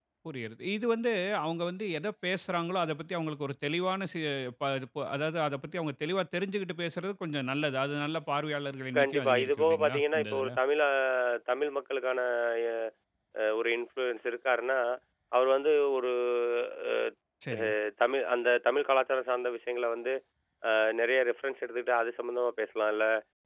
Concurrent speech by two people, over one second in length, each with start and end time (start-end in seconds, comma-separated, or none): 9.0-10.6